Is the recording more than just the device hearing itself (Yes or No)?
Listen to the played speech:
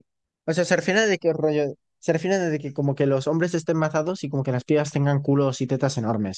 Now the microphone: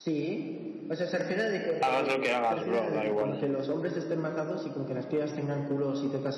Yes